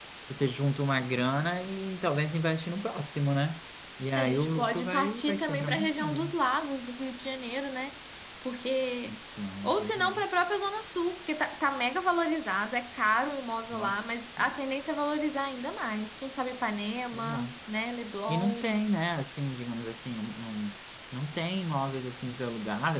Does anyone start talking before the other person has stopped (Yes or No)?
Yes